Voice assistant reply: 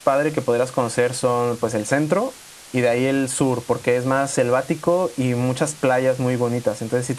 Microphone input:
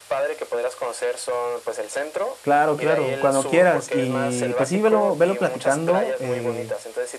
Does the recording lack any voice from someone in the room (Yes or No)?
No